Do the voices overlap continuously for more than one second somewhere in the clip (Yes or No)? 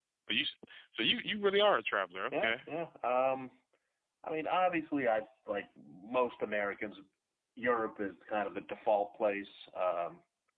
No